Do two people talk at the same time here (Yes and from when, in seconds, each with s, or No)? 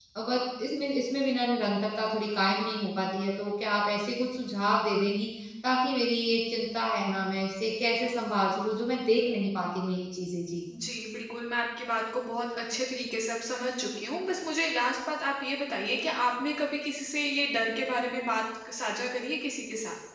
No